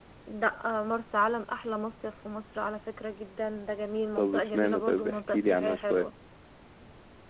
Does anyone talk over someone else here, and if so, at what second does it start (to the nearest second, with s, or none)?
4 s